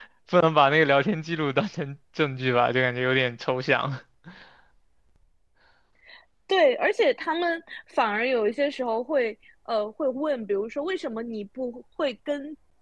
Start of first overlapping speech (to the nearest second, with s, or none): none